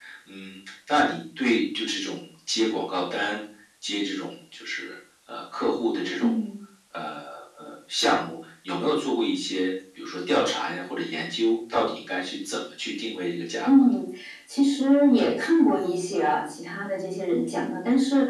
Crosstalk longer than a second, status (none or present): none